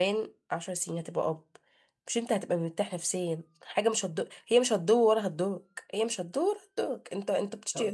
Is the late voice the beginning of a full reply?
No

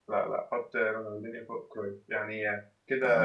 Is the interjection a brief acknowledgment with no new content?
No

